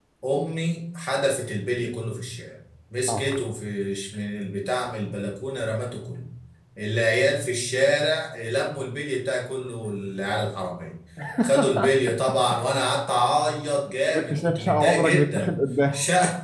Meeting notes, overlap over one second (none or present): present